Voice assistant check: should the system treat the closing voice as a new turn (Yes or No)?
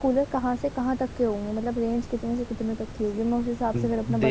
Yes